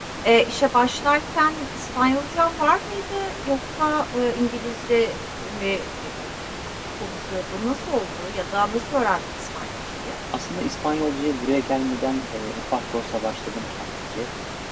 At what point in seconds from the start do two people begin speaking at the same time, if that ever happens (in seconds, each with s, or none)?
none